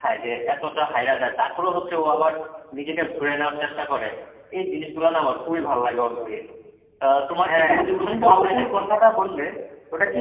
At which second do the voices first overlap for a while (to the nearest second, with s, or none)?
7 s